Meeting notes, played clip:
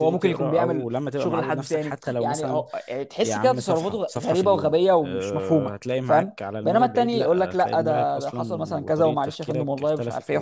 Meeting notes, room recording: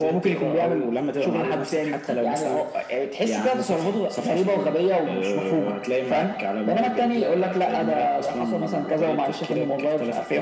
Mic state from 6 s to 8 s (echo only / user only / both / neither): echo only